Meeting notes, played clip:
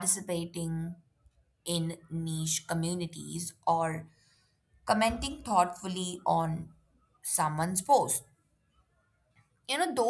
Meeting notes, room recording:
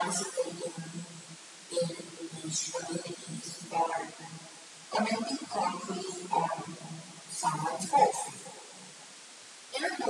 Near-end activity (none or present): none